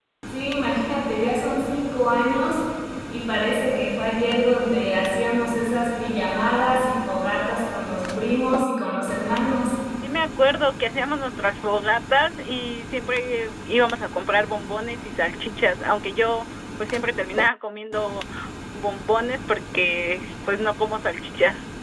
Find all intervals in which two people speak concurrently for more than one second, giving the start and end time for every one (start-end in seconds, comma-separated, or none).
none